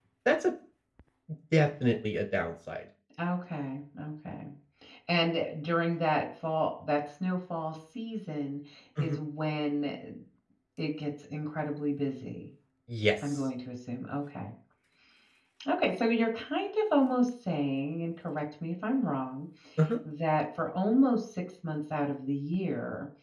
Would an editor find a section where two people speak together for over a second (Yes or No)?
No